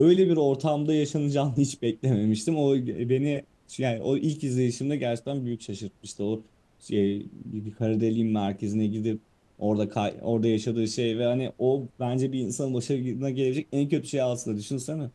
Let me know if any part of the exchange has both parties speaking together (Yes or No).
No